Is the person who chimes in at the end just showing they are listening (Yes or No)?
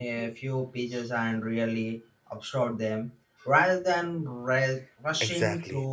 No